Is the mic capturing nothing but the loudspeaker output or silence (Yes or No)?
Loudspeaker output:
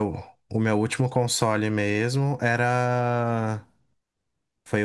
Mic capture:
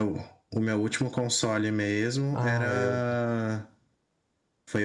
No